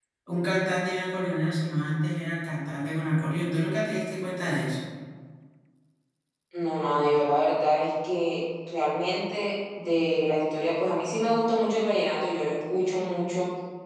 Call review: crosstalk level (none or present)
none